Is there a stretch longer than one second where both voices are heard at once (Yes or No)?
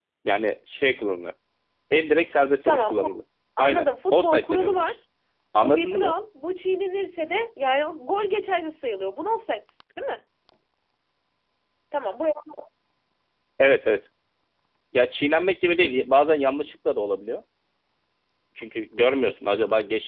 Yes